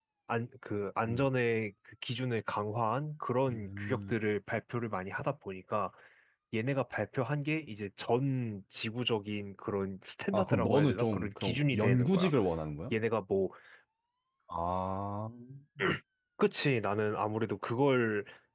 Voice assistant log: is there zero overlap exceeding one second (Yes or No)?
No